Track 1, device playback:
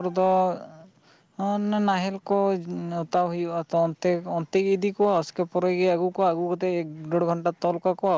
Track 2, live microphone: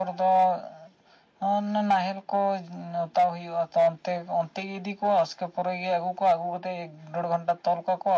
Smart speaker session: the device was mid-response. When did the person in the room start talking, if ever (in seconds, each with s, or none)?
none